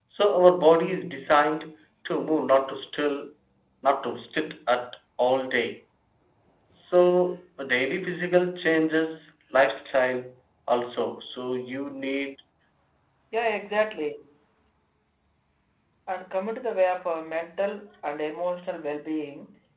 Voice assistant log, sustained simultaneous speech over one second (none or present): none